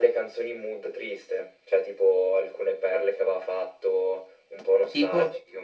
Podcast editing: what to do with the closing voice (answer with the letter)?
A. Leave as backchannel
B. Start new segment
A